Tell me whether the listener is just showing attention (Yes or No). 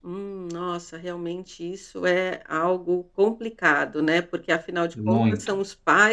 Yes